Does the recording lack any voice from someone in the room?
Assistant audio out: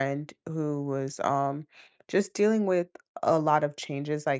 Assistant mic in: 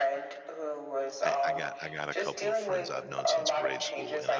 No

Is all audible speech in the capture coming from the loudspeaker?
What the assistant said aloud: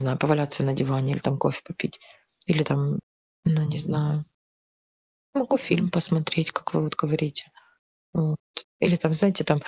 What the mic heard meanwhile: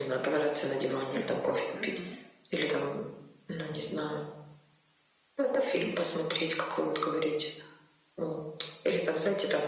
No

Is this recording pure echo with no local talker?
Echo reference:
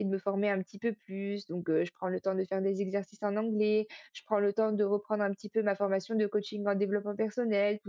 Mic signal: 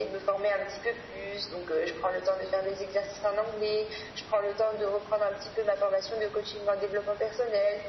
Yes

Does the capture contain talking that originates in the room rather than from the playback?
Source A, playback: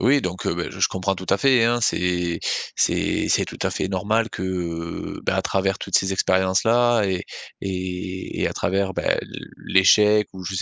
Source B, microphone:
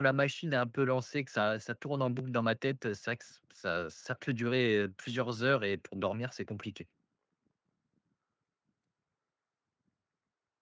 Yes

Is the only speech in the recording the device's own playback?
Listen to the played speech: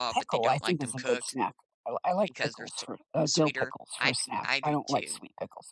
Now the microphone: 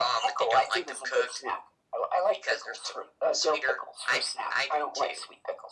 Yes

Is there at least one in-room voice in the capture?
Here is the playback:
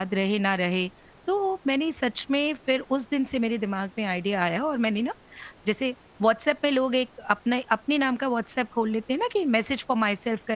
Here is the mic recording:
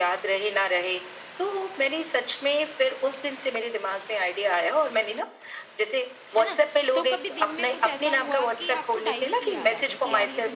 Yes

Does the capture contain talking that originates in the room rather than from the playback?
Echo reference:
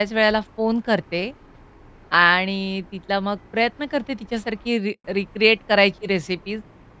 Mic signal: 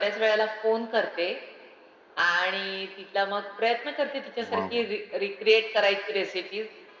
Yes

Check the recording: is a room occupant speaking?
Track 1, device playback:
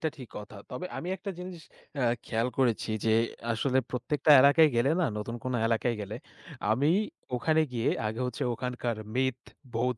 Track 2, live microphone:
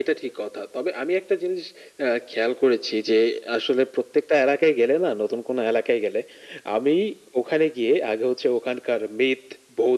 No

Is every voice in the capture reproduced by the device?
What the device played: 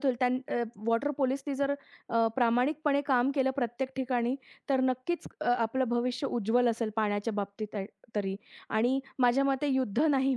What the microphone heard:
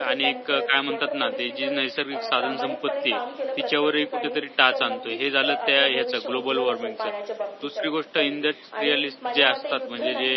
No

